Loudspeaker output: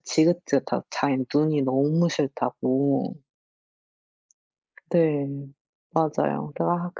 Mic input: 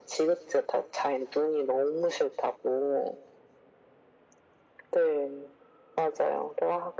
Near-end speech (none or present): none